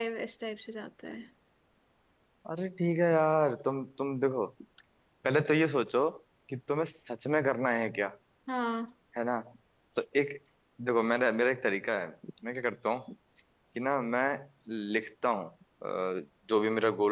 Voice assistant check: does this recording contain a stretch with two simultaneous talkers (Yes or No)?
No